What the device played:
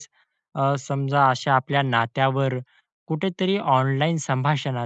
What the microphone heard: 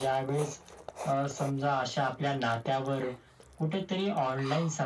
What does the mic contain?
echo only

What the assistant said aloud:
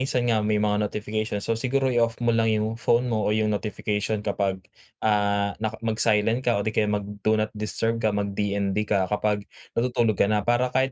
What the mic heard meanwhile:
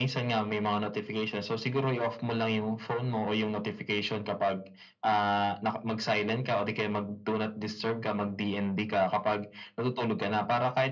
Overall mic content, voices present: echo only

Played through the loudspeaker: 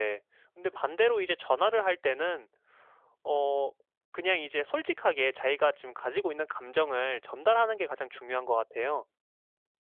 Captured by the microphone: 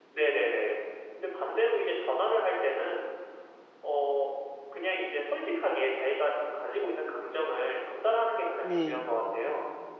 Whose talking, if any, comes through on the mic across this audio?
both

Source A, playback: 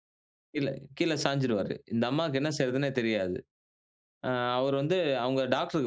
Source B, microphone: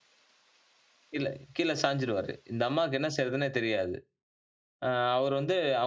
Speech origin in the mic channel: echo only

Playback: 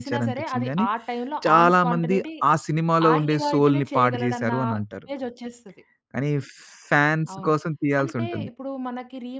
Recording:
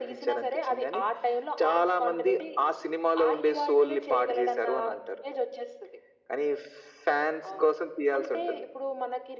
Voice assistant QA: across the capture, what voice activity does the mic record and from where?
echo only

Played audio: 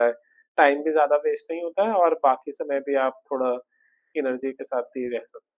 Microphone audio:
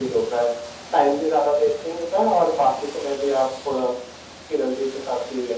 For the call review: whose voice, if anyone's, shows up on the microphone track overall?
echo only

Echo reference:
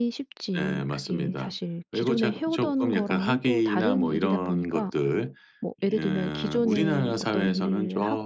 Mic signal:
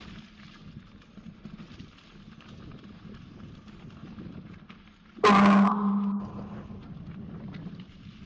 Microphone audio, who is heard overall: user only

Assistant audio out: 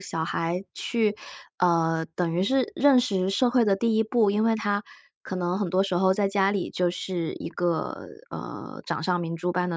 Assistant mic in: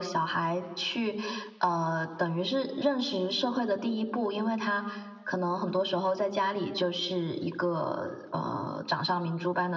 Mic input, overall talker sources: echo only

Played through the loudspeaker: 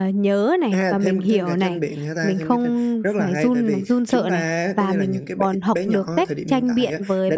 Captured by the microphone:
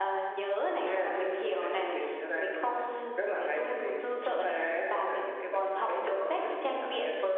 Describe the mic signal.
echo only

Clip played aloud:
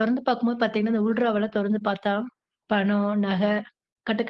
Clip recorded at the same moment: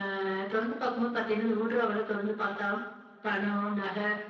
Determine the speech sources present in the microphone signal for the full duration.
echo only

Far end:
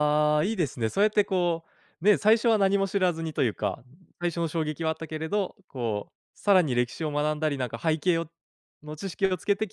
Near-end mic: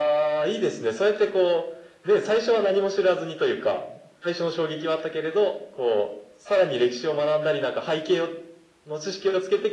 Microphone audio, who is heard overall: echo only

